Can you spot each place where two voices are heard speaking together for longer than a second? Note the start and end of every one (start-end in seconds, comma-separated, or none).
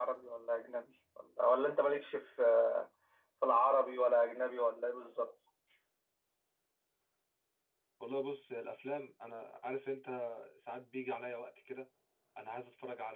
none